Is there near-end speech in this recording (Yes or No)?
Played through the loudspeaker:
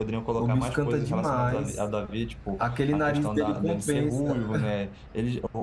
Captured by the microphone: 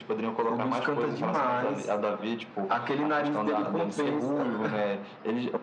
Yes